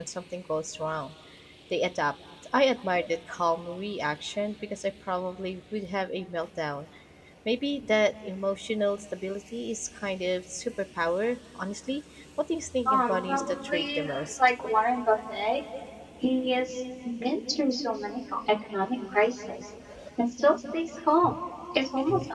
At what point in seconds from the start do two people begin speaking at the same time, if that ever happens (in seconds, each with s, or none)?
12.9 s